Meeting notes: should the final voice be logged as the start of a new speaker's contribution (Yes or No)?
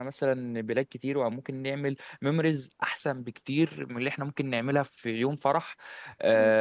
No